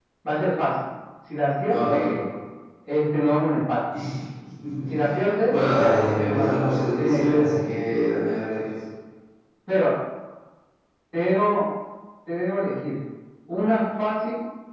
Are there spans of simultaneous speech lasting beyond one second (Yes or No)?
Yes